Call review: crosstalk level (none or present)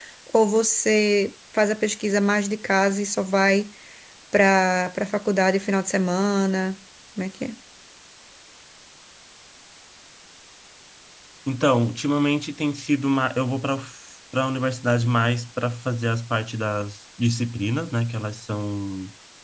none